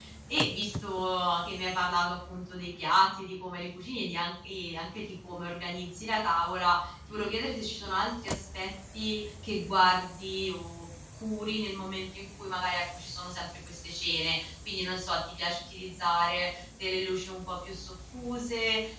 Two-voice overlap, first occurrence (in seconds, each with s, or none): none